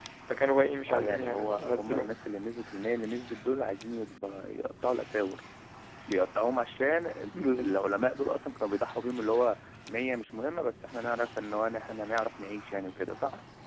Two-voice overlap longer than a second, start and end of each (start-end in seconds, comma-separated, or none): 0.9-2.2